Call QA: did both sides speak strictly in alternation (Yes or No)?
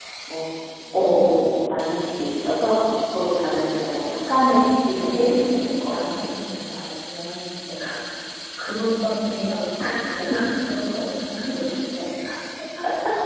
No